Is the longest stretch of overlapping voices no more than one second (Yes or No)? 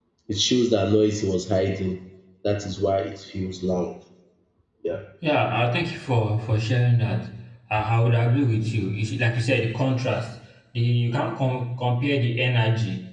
Yes